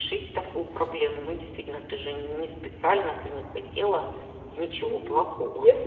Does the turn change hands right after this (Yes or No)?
Yes